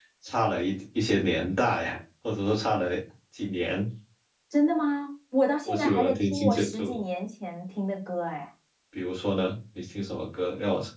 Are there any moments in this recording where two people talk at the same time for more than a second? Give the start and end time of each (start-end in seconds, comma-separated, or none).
5.6-6.9